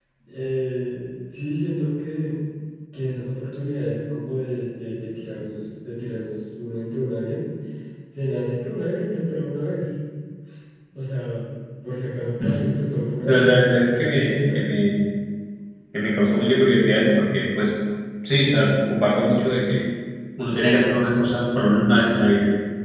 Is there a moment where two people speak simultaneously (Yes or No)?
Yes